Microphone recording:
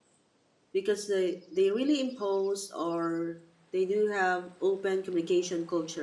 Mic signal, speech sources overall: user only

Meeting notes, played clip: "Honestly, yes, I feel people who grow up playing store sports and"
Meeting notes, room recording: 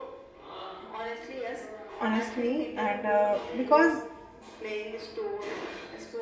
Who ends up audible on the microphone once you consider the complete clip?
both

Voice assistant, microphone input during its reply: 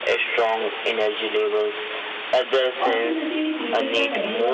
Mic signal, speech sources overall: both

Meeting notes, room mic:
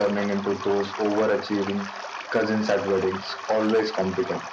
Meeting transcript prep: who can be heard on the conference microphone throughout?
echo only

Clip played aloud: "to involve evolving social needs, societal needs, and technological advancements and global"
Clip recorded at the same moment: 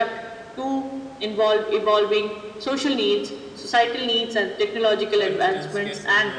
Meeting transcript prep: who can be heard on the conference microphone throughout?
both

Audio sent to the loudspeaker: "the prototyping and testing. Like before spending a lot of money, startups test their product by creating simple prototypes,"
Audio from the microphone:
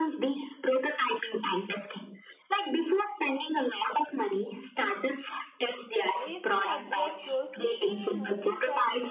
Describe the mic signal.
both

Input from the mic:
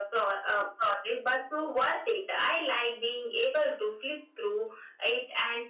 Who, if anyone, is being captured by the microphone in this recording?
echo only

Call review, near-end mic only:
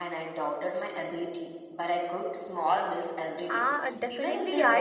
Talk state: both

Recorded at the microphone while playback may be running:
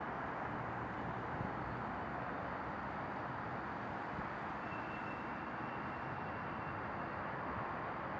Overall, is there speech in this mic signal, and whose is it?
neither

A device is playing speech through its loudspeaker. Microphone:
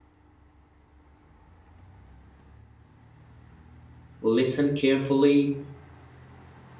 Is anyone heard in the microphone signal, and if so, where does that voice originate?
user only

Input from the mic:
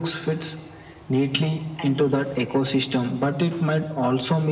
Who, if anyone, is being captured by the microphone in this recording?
both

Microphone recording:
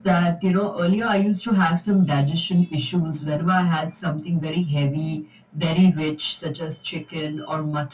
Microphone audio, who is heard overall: echo only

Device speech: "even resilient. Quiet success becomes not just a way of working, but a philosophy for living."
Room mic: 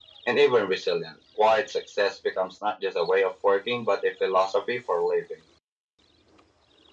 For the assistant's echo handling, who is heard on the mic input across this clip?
echo only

